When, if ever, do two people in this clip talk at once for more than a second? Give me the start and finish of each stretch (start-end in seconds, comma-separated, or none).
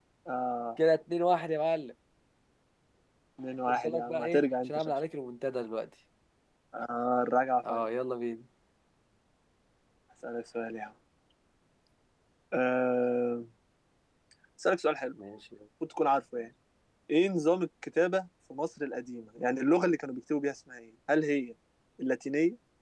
3.7-4.9